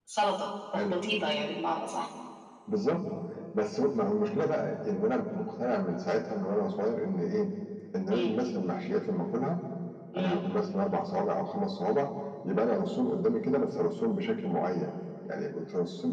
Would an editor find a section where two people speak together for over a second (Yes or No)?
No